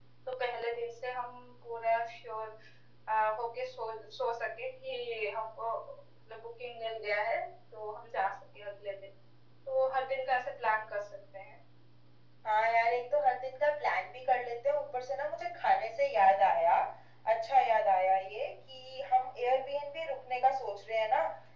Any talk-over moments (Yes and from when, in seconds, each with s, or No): No